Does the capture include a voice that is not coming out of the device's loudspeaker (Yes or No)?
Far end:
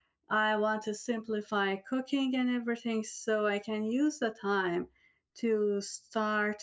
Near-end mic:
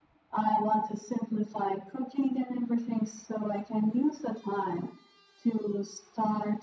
No